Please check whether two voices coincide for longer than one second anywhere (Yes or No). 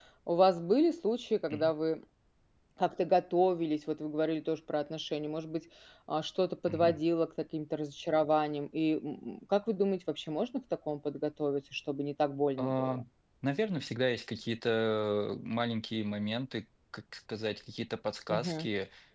No